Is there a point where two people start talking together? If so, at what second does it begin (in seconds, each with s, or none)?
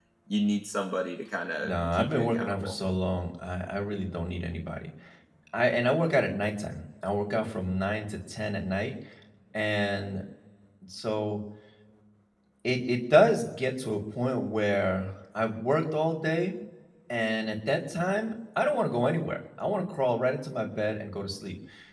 1.6 s